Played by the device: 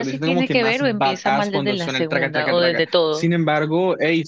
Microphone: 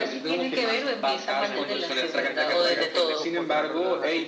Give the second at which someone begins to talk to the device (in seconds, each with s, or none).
1.4 s